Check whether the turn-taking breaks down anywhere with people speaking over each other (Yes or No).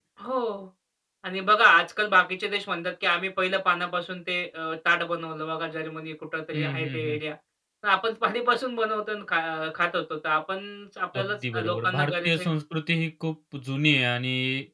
Yes